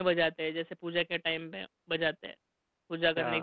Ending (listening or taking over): taking over